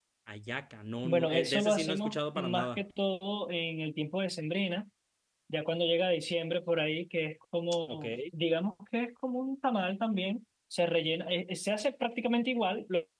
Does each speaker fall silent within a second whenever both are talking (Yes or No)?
No